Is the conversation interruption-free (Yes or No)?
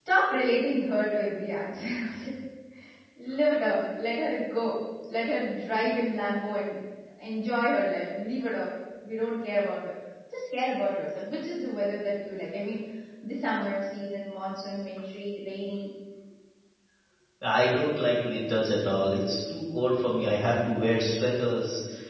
Yes